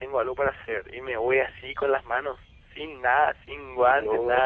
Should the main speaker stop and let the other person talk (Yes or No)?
No